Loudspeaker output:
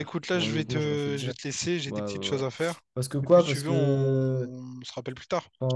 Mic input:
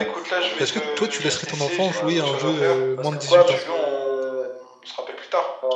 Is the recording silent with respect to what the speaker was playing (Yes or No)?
No